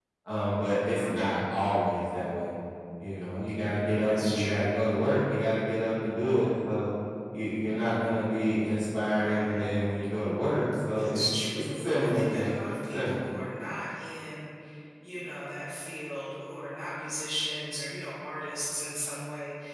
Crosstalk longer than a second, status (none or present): present